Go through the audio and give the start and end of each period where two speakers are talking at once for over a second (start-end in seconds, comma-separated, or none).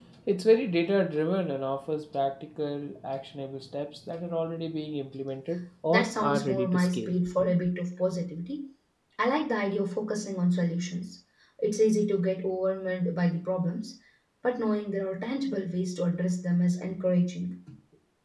5.9-7.1